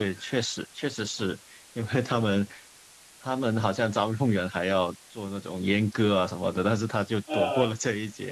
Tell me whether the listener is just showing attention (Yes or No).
Yes